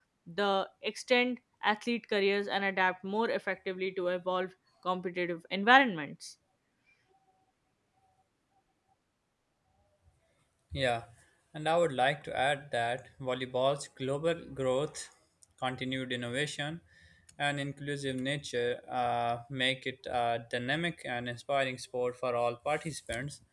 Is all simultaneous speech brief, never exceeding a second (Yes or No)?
Yes